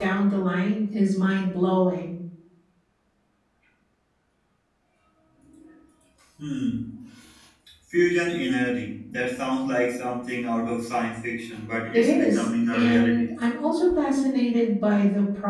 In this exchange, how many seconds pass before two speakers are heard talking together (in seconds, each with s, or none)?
11.9 s